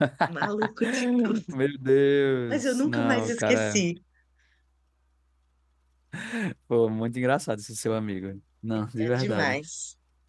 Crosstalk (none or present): present